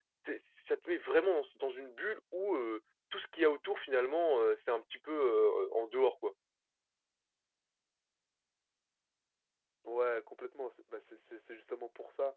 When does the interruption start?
none

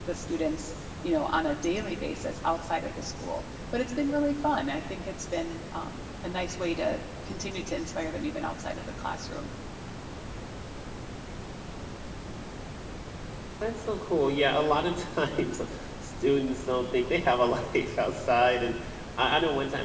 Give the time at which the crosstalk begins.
none

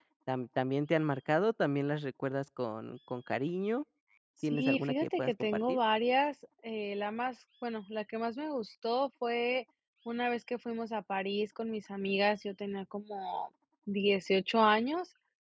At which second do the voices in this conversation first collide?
4.4 s

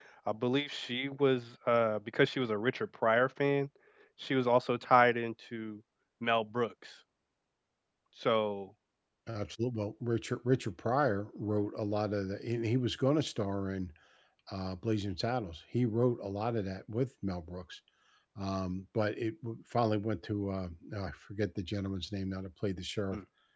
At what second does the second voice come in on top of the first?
none

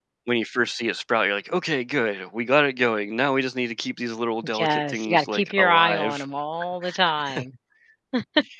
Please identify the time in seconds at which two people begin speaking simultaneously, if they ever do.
4.6 s

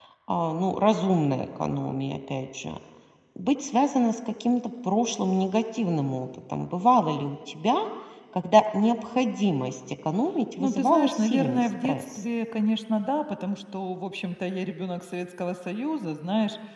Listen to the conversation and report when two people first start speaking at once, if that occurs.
10.6 s

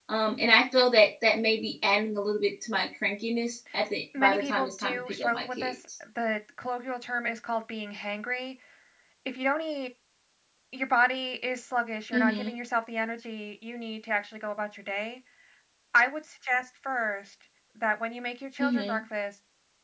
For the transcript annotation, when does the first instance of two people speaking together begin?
4.2 s

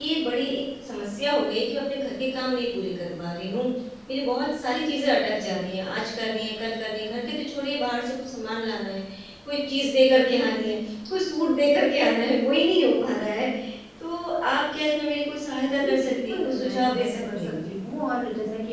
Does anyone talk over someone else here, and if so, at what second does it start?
15.7 s

